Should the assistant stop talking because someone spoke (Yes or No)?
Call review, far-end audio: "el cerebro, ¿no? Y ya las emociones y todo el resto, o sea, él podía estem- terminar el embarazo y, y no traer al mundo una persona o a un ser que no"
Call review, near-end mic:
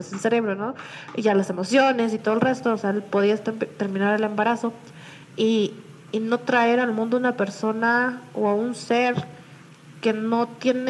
No